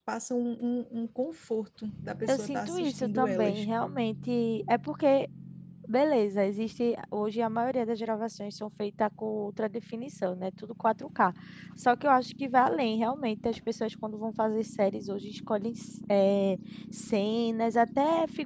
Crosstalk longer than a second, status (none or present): present